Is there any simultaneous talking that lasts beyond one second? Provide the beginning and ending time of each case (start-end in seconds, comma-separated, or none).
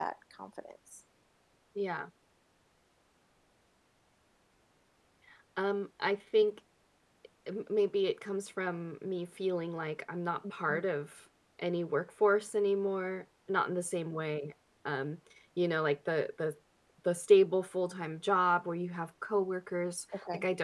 none